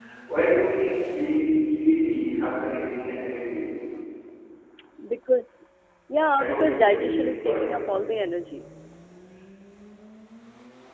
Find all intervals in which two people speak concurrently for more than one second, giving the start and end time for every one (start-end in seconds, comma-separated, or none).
6.4-7.7